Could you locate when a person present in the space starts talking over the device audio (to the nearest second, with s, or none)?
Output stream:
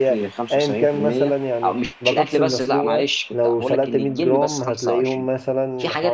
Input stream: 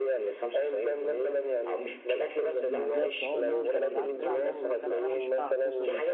3 s